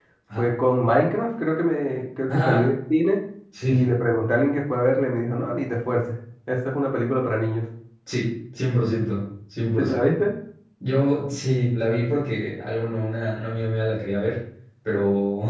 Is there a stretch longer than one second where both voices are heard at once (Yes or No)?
No